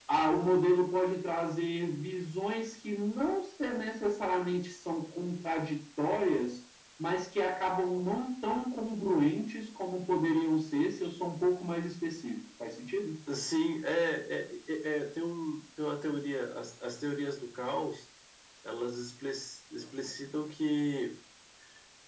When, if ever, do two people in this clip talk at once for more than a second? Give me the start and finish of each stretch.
none

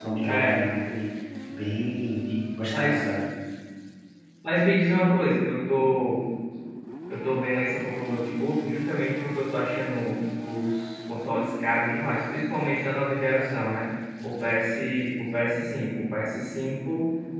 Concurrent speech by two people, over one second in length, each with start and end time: none

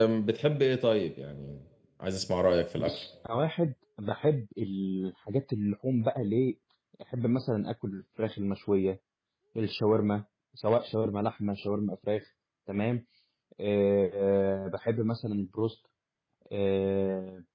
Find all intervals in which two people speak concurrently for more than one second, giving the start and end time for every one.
none

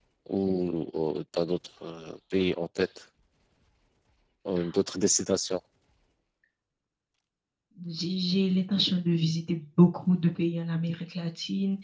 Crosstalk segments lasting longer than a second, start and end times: none

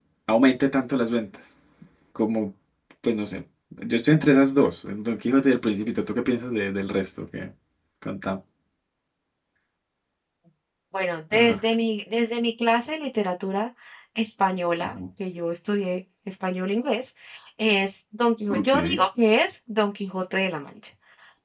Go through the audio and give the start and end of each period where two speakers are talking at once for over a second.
none

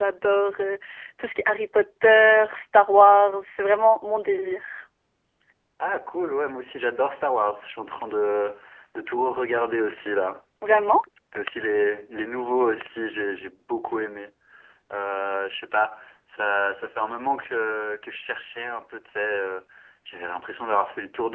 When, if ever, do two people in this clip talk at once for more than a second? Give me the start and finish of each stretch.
none

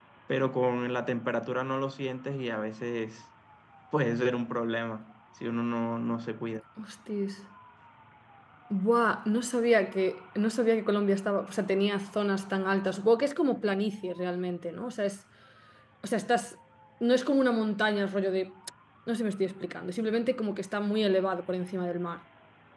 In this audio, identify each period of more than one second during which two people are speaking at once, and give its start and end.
none

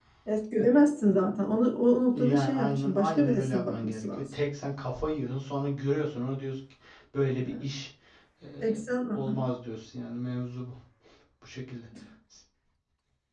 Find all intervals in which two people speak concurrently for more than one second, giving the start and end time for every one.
2.1-4.2

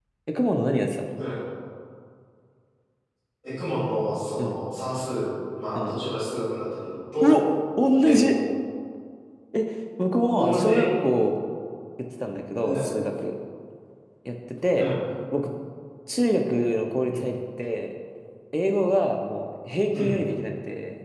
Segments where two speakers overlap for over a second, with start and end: none

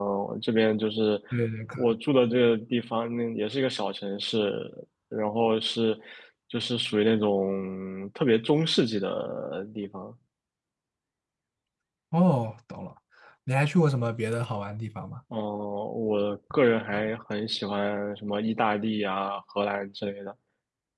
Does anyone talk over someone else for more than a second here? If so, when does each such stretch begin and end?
none

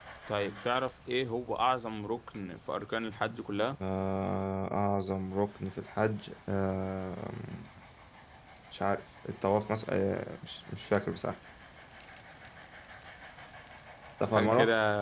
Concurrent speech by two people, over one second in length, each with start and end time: none

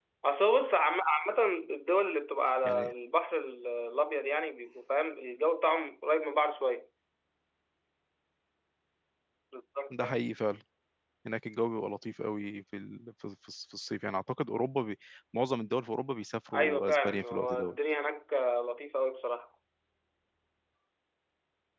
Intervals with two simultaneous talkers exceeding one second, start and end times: 16.5-17.7

